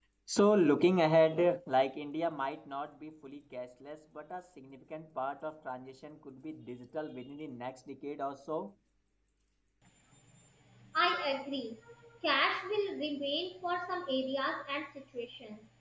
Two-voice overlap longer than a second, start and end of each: none

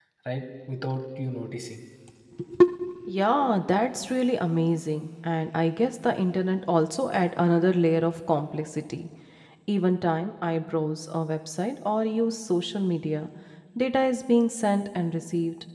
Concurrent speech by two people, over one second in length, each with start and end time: none

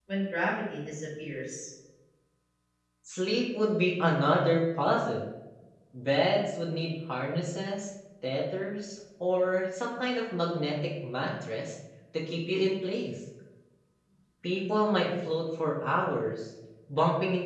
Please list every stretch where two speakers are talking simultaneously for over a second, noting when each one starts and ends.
none

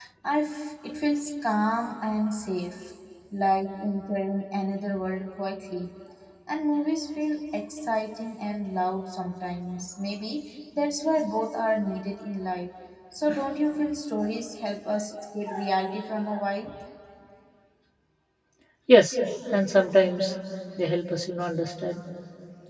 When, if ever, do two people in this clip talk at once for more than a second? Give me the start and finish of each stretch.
none

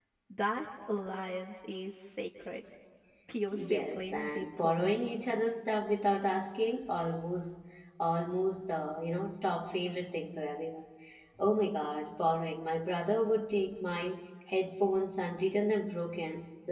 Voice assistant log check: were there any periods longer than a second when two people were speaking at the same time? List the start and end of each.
3.5-5.2

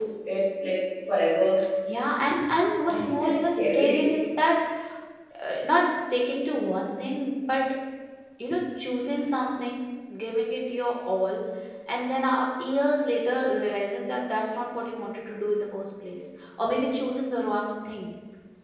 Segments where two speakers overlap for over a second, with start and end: 2.8-4.2

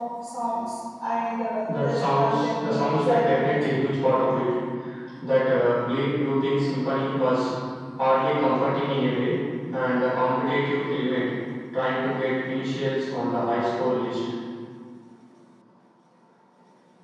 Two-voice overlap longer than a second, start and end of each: 1.7-3.5

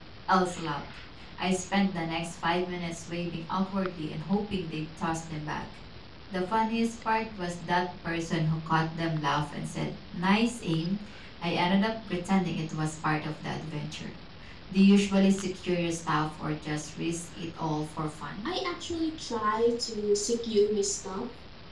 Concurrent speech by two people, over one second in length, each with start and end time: none

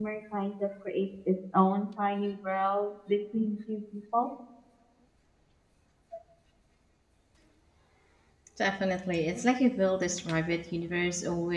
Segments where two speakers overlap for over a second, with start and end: none

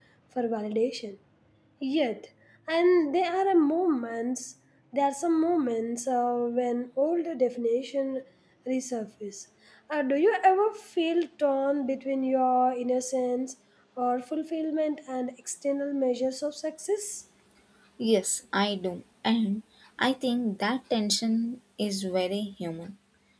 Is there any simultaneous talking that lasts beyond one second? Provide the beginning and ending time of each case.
none

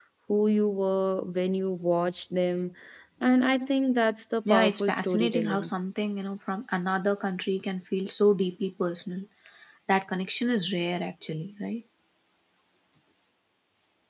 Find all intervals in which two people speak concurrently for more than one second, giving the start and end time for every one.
4.5-5.7

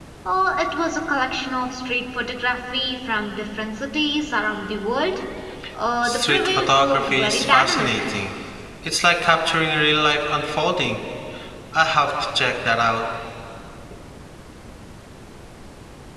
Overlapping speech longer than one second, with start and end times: 6.0-8.0

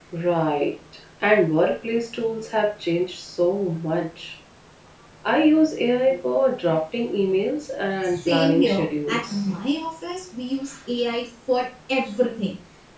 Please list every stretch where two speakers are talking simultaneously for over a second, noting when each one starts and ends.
8.0-9.5

